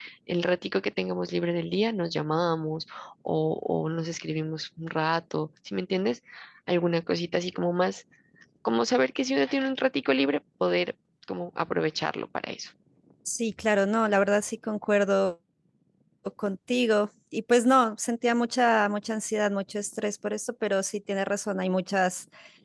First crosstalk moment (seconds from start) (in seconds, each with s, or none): none